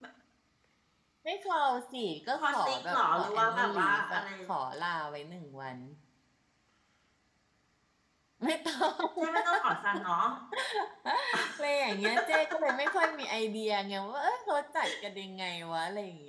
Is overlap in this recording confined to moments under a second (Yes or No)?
No